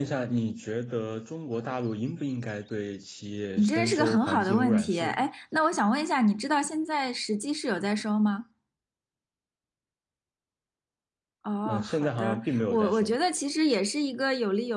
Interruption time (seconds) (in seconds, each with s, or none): 3.6 s